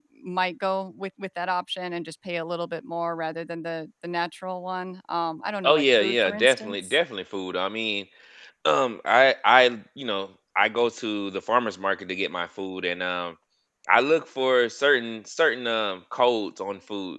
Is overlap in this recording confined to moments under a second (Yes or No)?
No